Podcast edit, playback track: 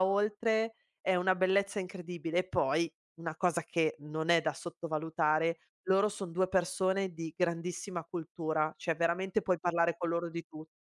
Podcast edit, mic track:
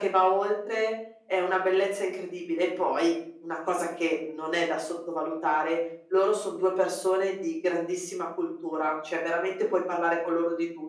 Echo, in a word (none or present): present